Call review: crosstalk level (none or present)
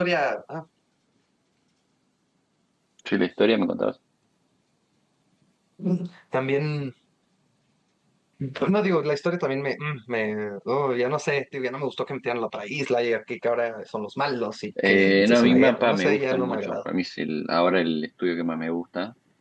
present